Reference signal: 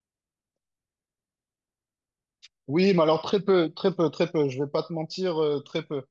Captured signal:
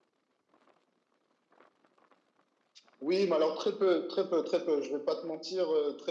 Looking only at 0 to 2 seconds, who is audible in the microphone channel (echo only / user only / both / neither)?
neither